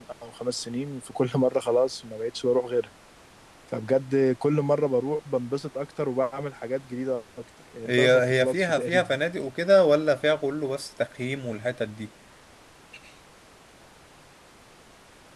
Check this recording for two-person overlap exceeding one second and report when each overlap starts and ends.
7.8-9.2

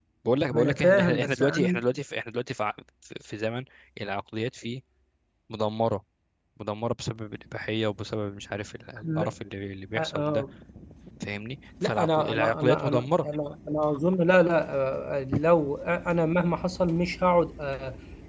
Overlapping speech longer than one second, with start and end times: 0.5-1.8, 11.8-13.3

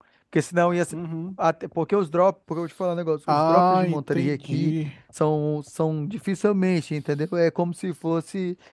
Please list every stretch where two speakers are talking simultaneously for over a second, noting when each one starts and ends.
3.3-4.7

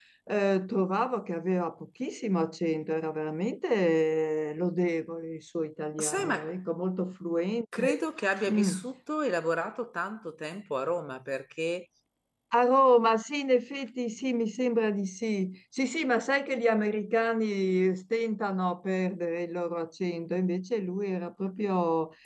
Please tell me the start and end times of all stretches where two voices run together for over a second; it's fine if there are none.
none

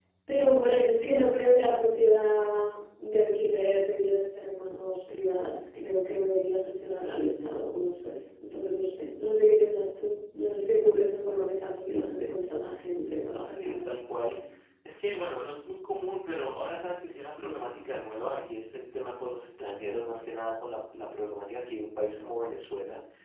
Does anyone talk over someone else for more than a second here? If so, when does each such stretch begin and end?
none

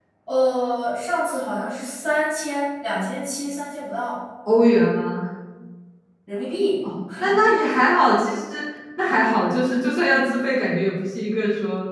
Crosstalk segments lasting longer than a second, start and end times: none

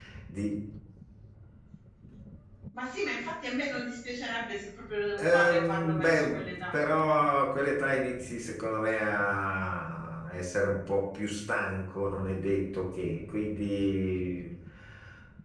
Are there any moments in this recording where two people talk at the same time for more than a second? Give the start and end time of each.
5.2-6.8

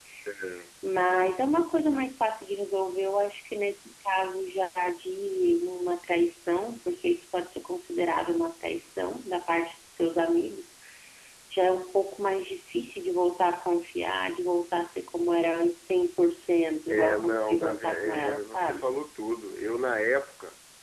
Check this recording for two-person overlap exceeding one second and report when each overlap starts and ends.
16.9-18.8

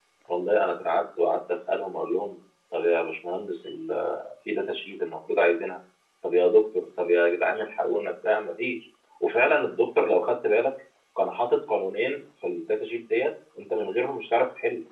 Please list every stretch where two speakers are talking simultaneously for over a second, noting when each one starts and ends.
none

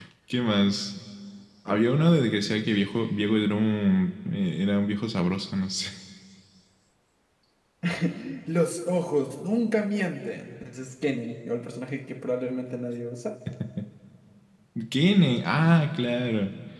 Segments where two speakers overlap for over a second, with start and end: none

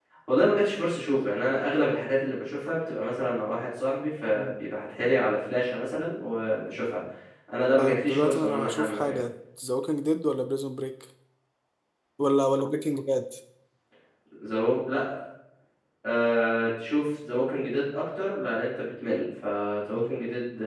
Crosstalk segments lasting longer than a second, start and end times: 7.8-9.2

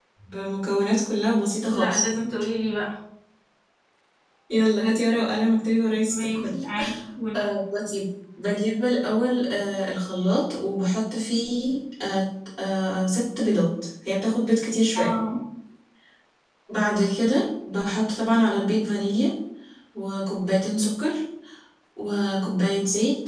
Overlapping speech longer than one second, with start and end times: none

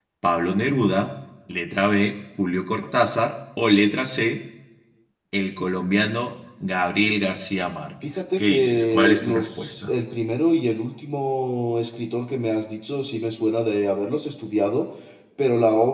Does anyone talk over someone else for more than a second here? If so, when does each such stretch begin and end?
8.0-9.9

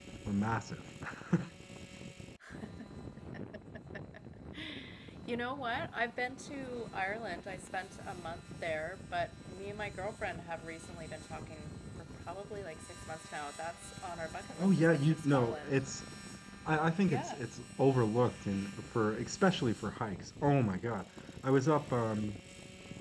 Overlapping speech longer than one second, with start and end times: 14.6-15.8

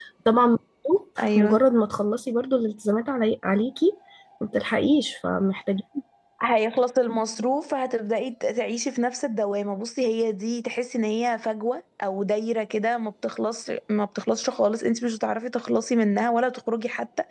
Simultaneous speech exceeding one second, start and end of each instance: none

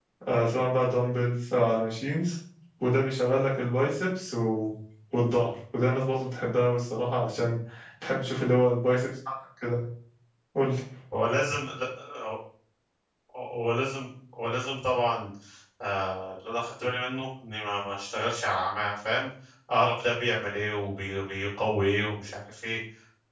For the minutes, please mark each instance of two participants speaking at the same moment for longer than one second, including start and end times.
none

